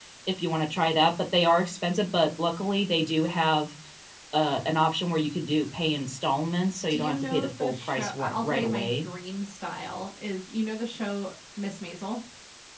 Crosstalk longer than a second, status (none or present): present